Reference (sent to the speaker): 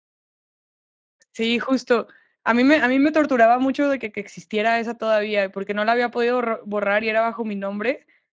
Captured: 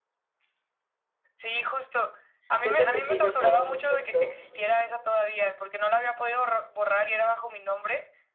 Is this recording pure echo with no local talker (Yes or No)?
No